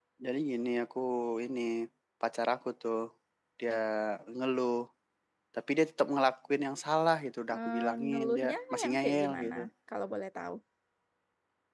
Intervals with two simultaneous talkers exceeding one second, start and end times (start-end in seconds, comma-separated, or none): 7.5-9.6